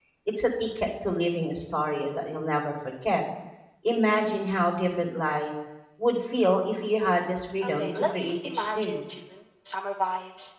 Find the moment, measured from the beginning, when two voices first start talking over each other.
7.6 s

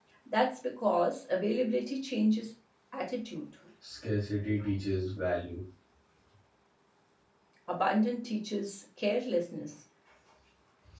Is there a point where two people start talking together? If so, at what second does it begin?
none

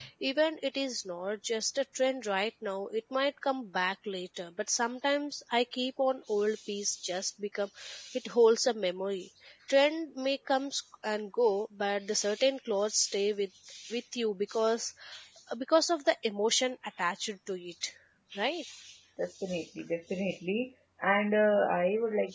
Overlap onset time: none

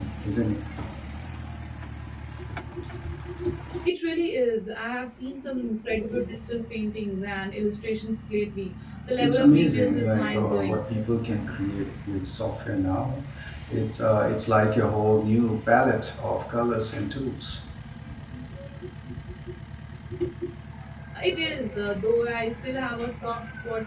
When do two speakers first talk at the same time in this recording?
9.2 s

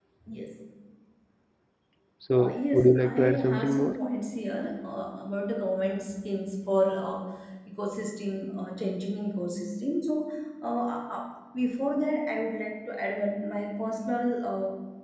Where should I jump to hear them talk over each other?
2.3 s

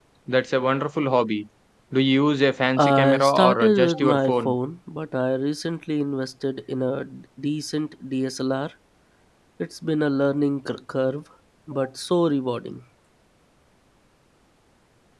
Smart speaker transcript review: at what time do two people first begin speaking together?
2.8 s

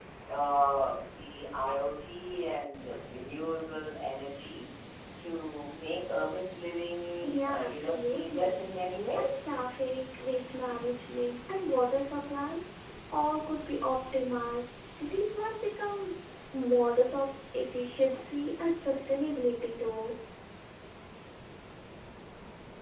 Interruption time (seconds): 7.2 s

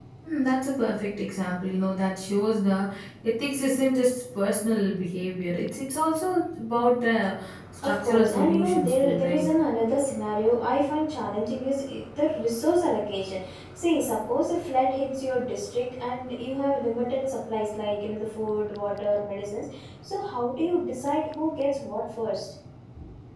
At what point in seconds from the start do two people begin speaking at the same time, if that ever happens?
7.8 s

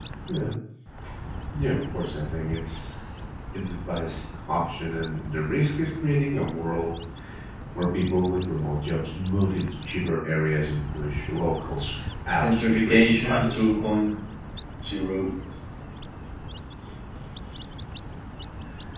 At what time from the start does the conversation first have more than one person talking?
12.4 s

